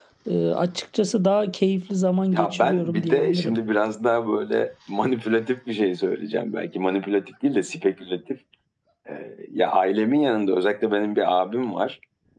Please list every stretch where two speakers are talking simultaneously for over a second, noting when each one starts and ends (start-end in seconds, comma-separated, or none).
2.3-3.6